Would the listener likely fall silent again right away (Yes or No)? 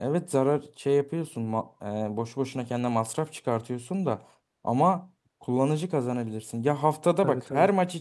Yes